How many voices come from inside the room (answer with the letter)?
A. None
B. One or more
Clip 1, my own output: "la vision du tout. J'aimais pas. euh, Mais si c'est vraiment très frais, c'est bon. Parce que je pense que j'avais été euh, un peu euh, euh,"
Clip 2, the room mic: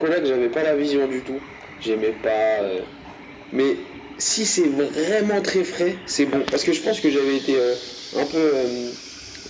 A